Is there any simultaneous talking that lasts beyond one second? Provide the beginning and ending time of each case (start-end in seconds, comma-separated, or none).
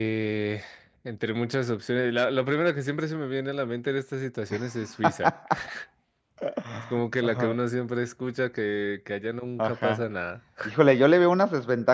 none